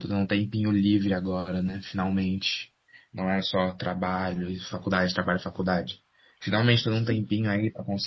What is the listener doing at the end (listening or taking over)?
listening